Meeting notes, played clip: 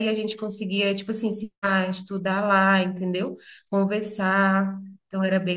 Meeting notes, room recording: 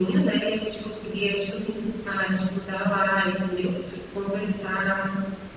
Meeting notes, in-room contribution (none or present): none